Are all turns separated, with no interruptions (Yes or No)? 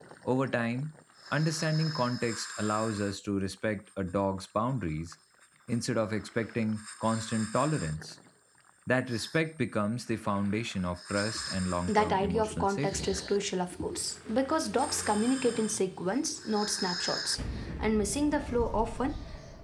No